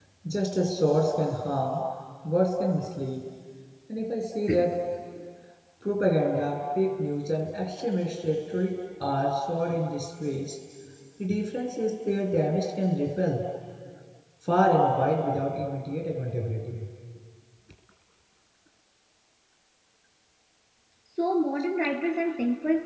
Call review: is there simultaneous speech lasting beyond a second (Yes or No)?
No